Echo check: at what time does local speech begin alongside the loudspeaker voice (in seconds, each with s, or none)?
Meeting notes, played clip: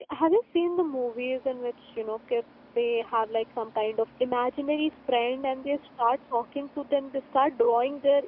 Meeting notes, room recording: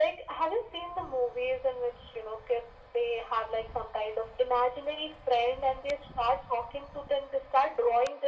none